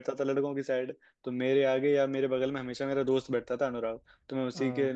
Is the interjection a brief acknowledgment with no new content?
Yes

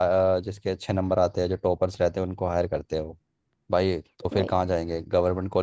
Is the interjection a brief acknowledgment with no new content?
Yes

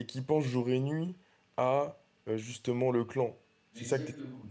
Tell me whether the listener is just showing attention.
No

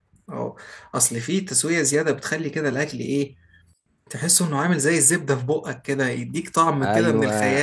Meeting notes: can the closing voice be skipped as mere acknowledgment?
No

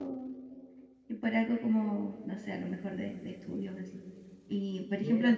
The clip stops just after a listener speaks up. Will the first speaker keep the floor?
Yes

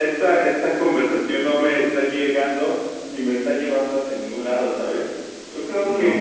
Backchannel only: Yes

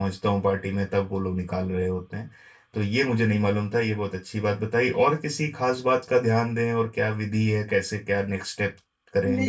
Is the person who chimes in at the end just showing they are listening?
No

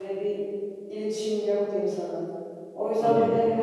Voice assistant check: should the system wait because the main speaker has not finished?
Yes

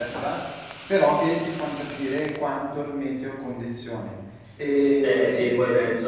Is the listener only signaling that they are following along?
No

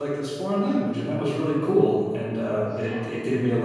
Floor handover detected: No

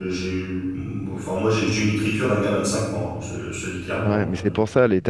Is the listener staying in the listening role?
No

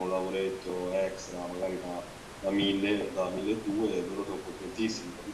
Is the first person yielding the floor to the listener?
No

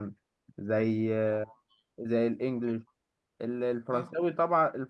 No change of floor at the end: Yes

